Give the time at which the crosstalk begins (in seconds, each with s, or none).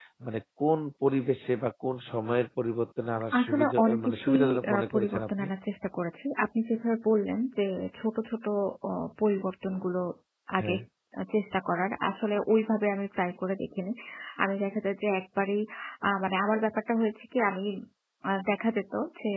3.3 s